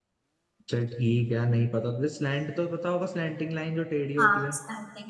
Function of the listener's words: taking over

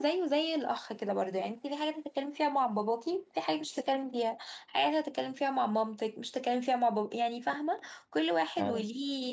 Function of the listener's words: listening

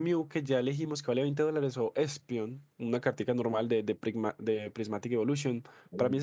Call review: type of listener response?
listening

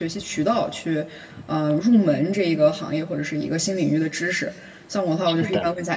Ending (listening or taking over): listening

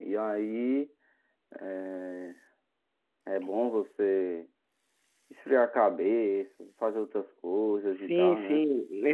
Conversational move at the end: taking over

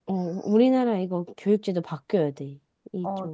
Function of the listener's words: taking over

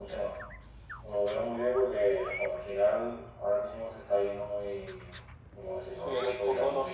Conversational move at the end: taking over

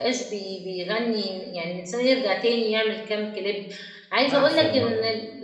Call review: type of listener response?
listening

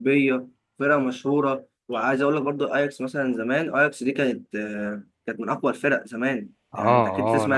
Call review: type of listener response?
taking over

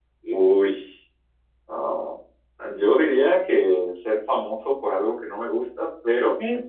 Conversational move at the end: listening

